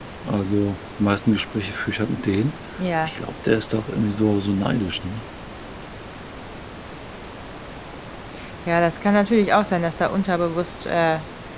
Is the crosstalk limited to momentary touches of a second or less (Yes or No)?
Yes